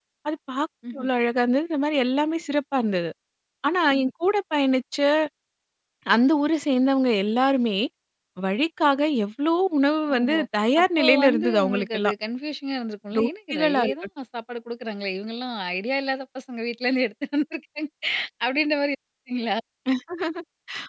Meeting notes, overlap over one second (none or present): present